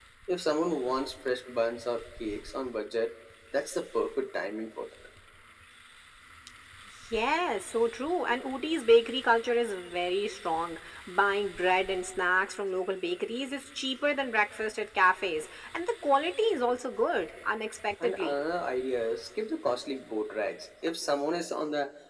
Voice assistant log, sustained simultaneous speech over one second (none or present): none